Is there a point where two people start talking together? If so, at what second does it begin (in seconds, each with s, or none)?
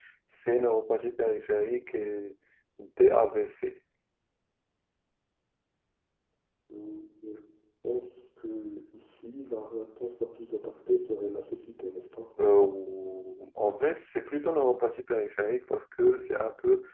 none